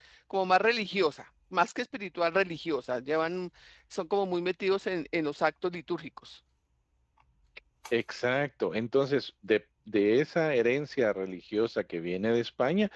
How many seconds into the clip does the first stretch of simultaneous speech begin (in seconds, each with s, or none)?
none